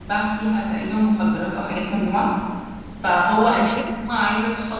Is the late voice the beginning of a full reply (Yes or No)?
No